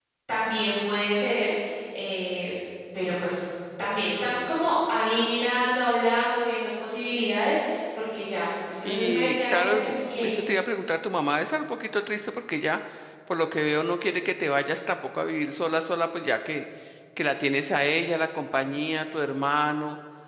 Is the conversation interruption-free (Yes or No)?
No